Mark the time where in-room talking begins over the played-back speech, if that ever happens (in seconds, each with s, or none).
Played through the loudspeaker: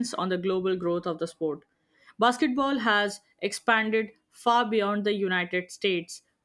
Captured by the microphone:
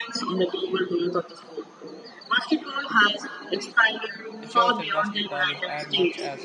4.4 s